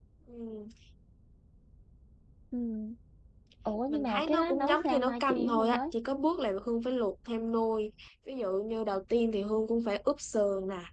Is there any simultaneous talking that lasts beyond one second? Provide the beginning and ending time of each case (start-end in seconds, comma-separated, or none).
3.9-5.8